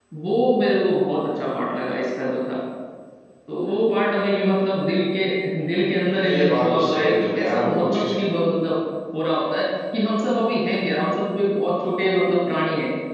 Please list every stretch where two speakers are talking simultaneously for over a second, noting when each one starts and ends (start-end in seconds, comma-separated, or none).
6.3-8.1